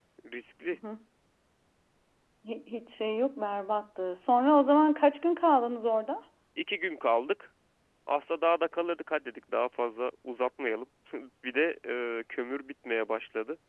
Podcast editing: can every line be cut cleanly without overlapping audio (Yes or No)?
Yes